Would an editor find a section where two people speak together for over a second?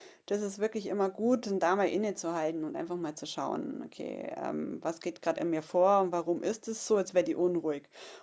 No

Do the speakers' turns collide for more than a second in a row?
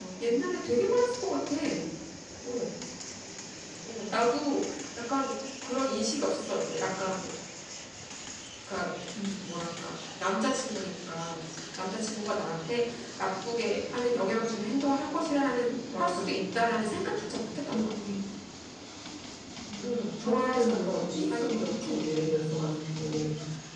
Yes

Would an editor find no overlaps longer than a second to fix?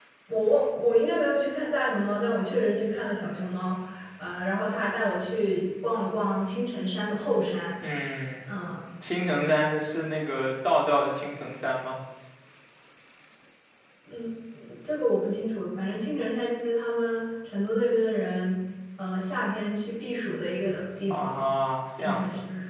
Yes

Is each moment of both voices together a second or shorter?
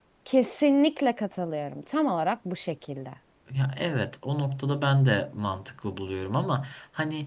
Yes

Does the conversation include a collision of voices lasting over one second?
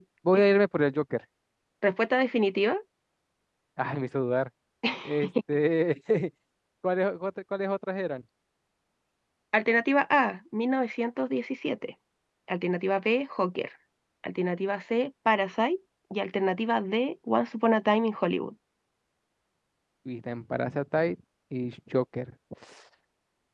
No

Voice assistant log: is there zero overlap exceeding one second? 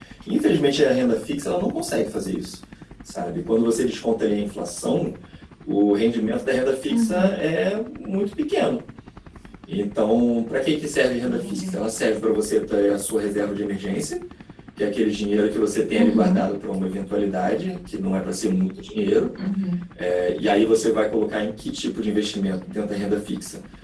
Yes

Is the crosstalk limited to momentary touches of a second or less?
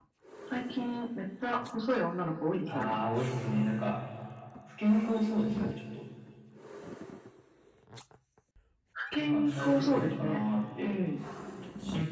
No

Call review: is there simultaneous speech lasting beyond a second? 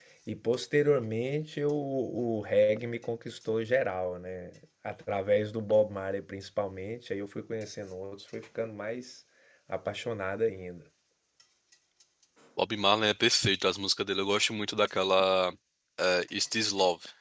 No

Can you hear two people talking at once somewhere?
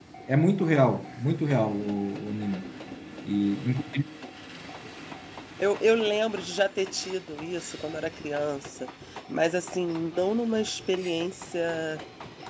No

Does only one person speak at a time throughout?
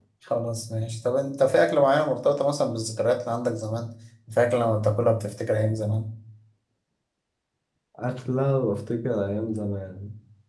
Yes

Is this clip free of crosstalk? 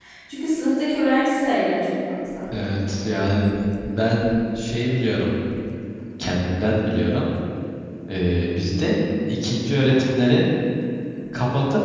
Yes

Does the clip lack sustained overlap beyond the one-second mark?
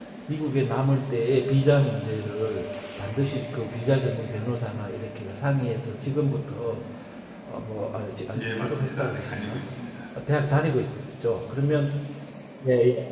No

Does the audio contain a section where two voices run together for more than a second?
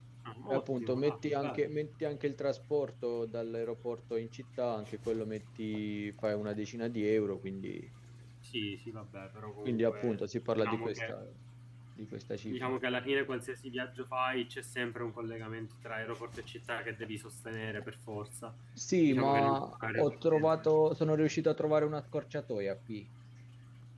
Yes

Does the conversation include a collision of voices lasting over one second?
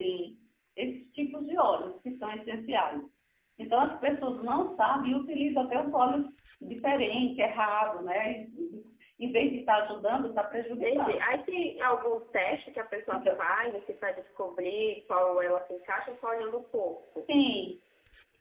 No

